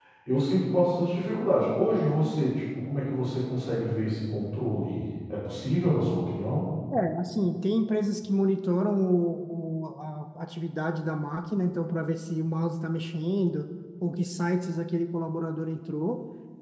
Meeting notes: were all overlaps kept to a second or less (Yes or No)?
Yes